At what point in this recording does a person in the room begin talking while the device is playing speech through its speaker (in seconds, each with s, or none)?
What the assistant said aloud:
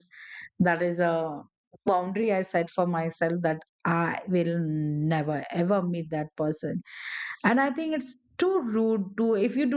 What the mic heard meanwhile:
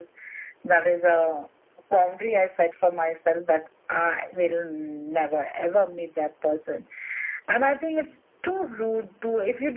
none